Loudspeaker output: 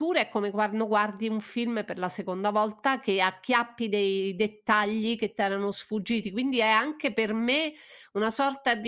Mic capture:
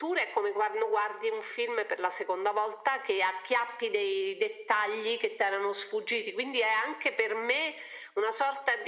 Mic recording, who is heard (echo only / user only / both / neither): echo only